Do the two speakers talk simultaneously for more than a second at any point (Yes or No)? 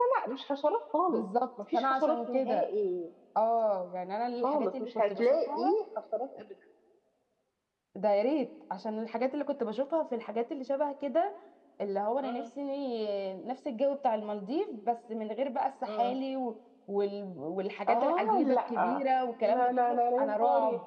Yes